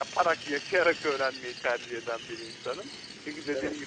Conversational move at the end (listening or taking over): listening